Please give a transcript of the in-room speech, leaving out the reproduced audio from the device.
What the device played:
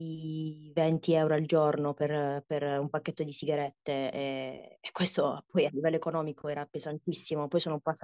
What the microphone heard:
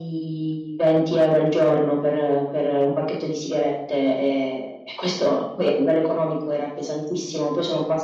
none

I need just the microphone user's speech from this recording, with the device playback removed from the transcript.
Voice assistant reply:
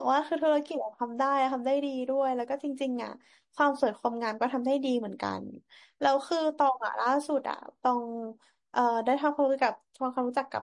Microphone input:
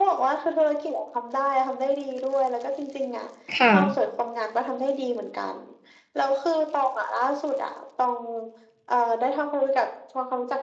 ค่ะ

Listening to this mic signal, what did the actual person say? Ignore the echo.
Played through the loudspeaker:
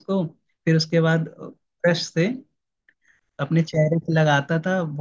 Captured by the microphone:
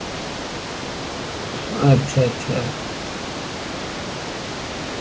हम्म, अच्छा अच्छा

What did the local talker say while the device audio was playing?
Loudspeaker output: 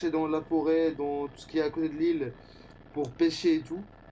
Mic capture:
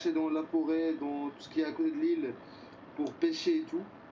none

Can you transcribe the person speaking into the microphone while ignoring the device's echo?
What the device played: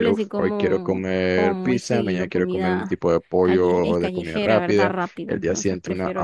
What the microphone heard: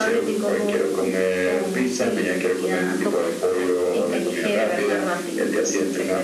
eh, toca.

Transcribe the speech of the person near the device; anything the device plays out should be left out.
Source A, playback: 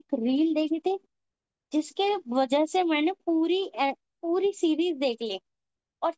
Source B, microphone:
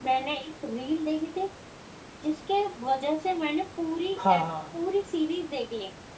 हाँ हाँ

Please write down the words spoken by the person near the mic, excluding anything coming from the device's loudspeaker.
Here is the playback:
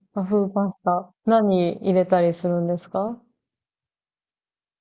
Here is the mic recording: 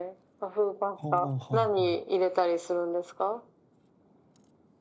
ああ、はいはい。

